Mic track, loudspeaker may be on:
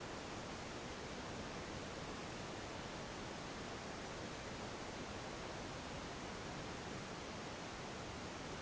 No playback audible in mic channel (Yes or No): Yes